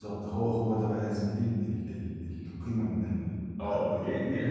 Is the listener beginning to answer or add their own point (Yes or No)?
Yes